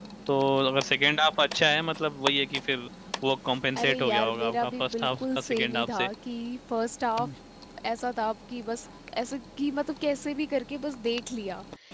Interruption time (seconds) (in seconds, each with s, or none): 3.8 s